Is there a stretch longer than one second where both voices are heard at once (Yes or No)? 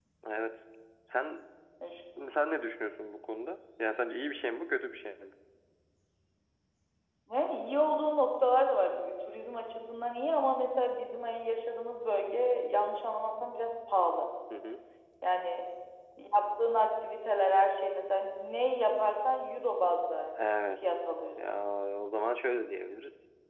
No